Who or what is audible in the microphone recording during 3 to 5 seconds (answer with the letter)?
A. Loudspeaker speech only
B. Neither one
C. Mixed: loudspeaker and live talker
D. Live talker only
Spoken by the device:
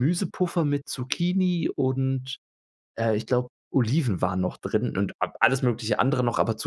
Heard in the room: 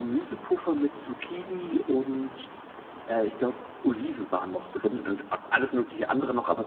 A